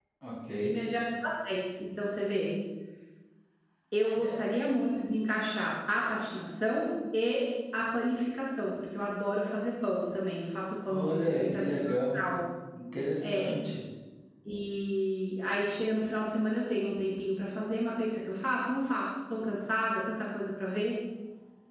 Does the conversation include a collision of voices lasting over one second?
Yes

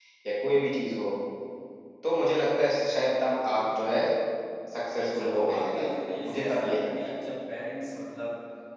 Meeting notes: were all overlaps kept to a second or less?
No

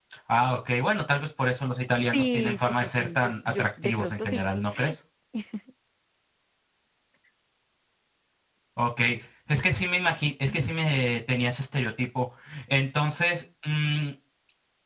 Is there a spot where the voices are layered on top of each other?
Yes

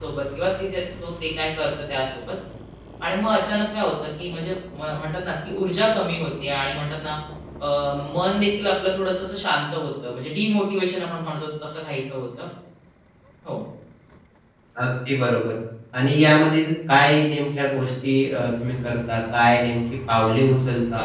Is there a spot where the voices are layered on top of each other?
No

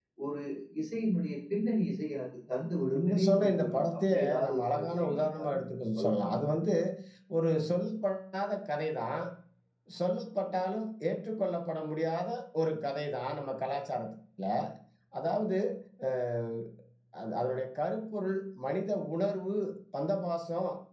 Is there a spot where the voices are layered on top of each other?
Yes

